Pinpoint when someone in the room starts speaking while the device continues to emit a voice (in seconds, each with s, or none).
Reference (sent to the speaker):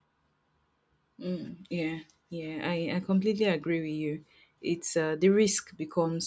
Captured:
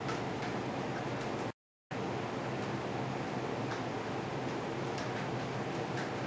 none